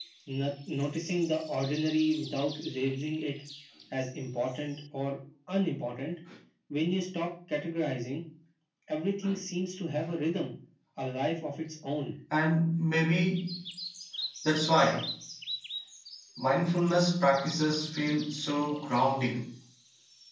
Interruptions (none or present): none